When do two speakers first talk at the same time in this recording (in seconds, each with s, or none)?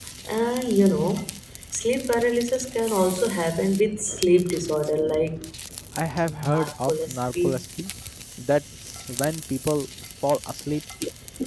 6.2 s